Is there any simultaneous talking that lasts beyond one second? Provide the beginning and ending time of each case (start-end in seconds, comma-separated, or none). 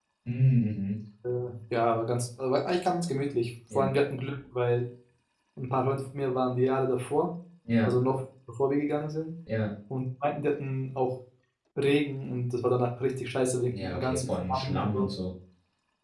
13.7-15.1